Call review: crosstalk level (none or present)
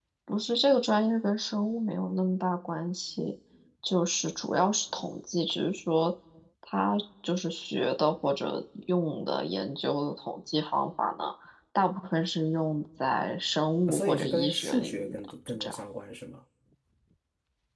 present